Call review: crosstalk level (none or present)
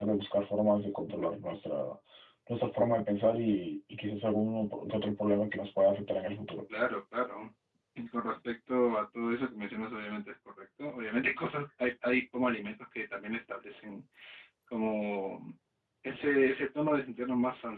none